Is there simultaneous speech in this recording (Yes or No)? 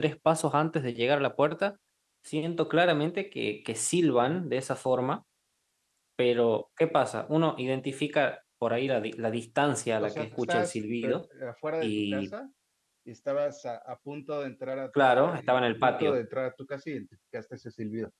Yes